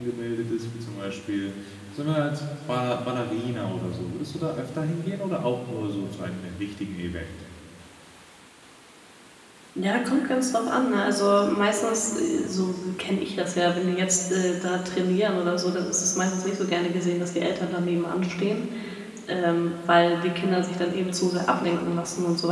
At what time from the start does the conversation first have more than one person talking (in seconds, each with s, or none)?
none